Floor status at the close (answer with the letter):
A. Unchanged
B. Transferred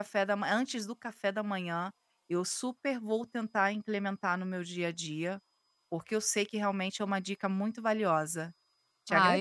B